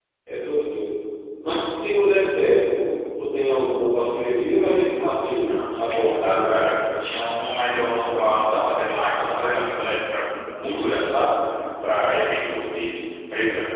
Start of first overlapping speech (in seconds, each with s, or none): 5.5 s